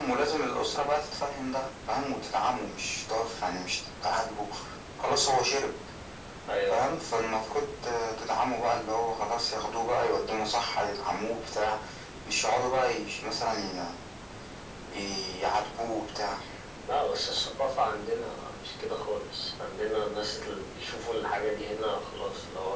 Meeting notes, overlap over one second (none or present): none